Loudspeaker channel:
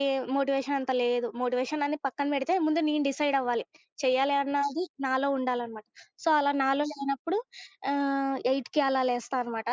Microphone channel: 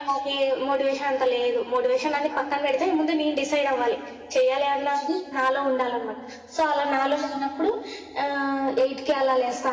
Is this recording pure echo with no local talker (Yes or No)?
Yes